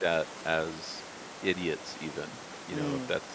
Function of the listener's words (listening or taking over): listening